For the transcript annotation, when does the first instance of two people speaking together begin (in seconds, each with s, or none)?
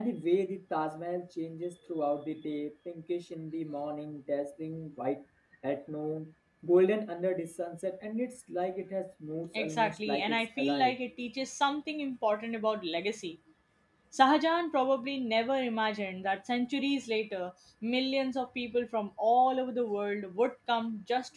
9.5 s